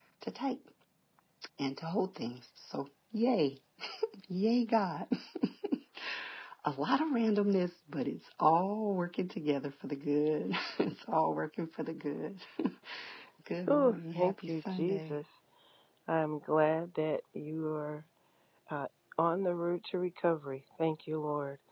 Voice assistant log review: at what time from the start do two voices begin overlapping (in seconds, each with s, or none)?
13.7 s